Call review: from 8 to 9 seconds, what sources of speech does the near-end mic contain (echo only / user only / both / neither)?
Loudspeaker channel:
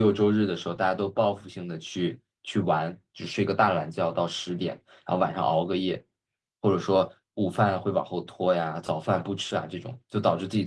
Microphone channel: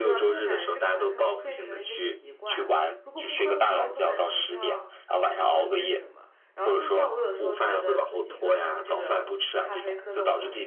both